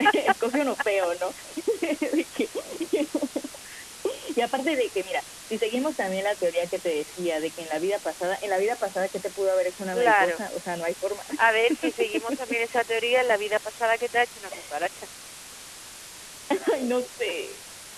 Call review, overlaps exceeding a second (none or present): none